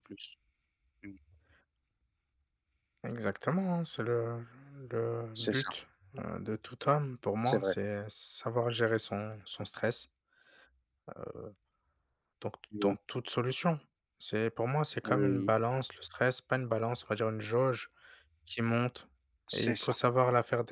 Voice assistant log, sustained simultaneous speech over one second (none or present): none